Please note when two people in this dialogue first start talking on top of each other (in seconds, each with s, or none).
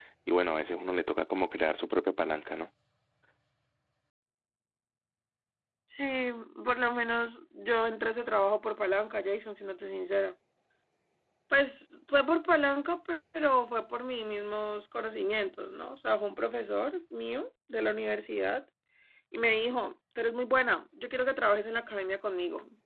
none